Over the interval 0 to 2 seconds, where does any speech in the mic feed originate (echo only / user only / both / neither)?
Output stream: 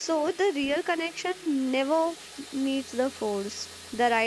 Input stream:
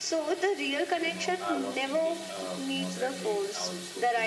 both